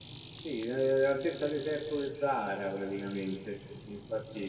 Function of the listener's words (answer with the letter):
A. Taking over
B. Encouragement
A